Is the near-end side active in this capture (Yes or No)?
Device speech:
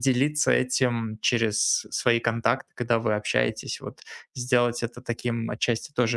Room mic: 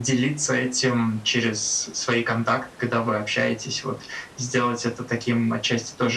No